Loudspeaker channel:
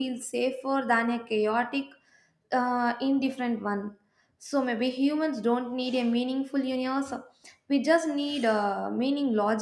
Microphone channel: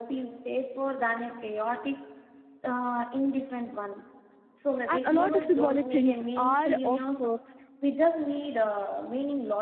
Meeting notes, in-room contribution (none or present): present